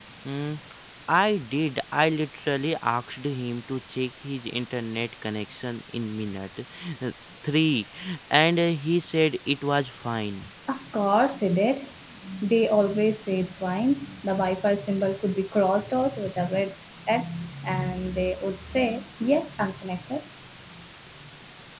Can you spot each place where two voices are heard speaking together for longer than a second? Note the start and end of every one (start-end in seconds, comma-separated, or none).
none